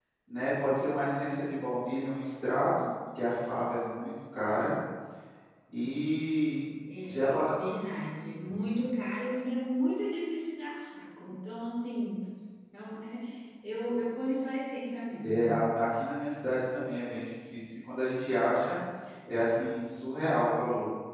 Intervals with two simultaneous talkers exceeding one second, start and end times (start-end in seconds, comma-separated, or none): none